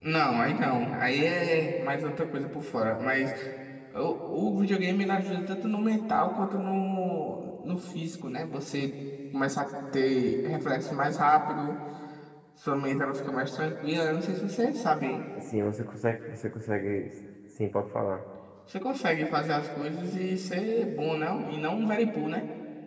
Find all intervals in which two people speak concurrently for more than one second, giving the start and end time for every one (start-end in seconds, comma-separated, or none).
none